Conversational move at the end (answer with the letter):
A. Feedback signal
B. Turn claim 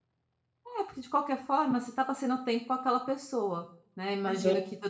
A